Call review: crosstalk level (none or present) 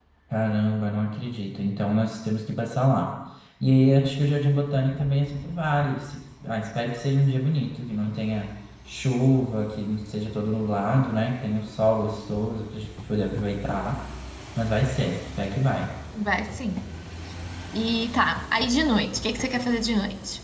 none